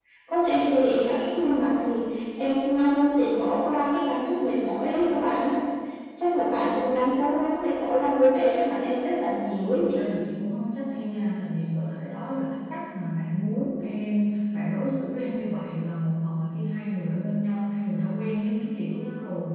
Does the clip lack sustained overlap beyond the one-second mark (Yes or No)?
Yes